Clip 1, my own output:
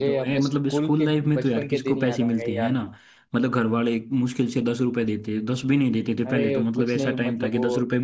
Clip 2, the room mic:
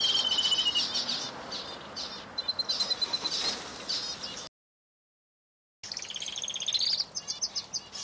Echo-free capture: Yes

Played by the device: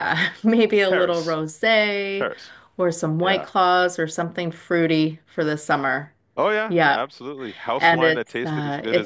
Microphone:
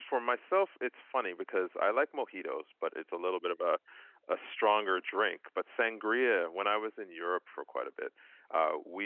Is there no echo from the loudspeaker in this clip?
Yes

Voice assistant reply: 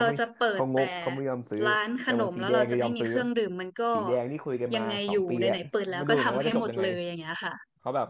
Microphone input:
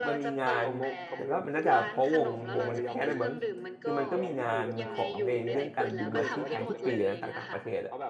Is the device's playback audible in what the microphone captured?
Yes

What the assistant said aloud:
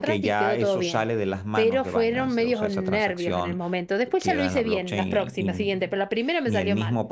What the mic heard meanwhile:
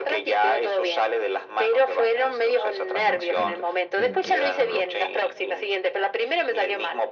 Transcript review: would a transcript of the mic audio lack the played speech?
No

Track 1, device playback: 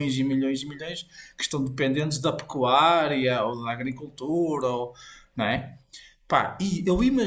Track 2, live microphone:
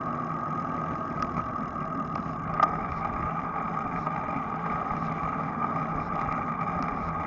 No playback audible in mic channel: Yes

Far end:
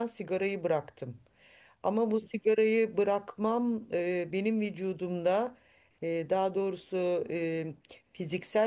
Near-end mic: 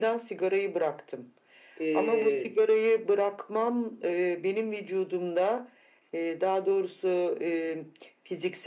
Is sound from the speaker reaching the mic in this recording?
Yes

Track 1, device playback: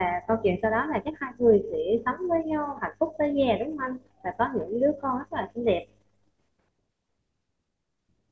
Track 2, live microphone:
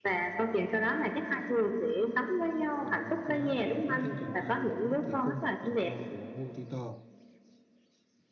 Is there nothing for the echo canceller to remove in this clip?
No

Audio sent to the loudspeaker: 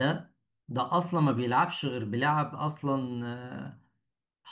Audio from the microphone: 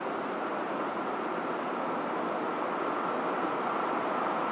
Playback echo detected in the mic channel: No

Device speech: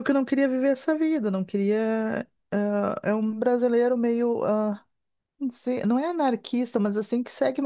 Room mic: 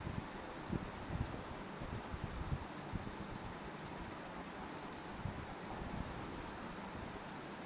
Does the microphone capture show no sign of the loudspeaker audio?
Yes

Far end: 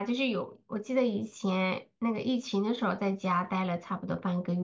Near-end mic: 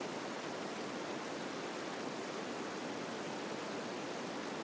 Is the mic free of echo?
Yes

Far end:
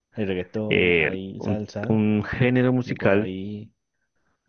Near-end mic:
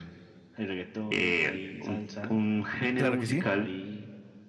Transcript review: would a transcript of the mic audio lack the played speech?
No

